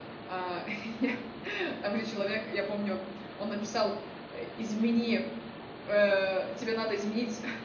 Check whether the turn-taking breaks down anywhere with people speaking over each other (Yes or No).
No